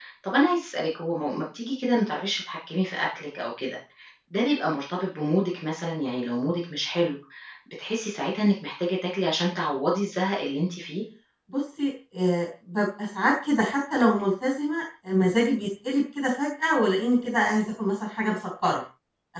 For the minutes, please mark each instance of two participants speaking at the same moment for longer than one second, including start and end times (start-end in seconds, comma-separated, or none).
none